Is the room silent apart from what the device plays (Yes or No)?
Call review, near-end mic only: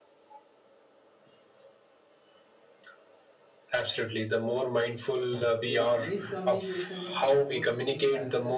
No